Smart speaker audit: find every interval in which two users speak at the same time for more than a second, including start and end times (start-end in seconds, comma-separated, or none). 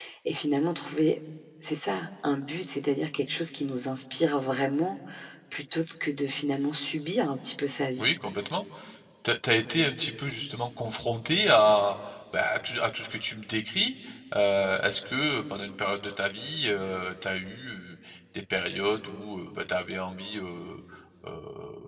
none